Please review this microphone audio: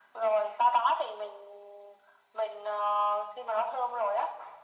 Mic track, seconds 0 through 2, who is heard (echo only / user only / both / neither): echo only